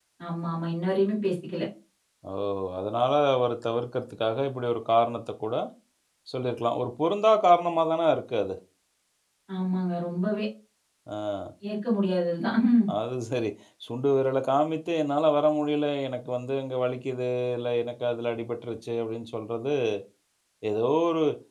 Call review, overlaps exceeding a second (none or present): none